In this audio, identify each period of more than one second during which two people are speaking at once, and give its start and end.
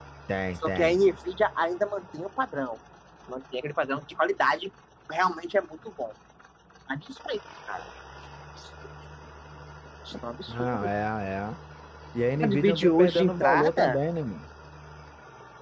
12.4-14.0

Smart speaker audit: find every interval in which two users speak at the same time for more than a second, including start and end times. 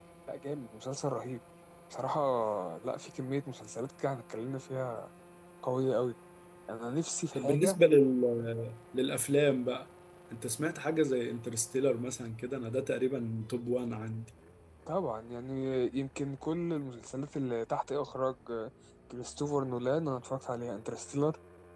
none

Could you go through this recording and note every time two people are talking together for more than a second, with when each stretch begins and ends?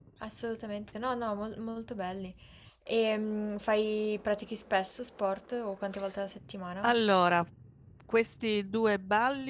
none

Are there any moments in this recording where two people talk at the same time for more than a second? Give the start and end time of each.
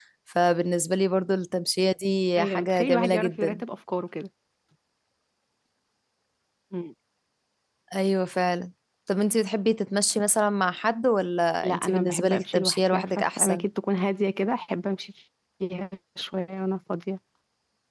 2.4-3.6, 11.6-13.7

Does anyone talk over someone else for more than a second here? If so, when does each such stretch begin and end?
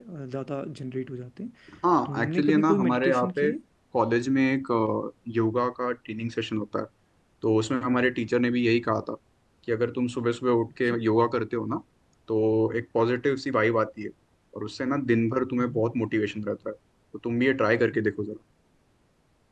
2.0-3.5

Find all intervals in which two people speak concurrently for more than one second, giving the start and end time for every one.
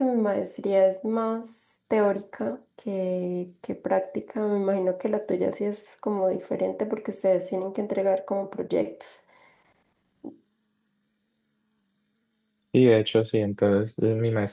none

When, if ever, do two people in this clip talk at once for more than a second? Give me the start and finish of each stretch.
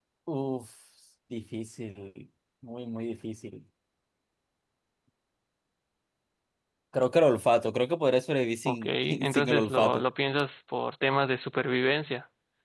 8.7-10.0

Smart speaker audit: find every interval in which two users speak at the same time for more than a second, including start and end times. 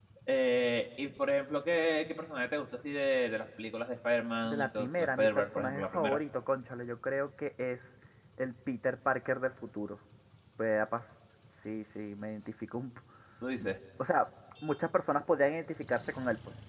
4.4-6.2

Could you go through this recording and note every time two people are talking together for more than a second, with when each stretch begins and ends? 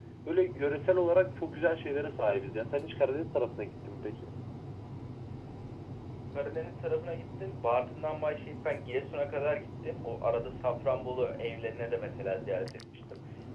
none

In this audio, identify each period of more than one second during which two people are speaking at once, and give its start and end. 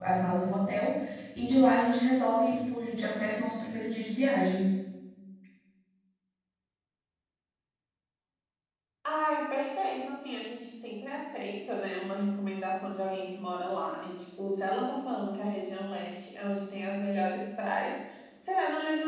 none

